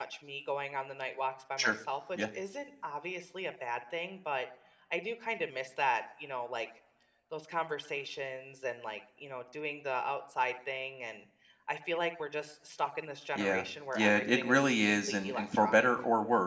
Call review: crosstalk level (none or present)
present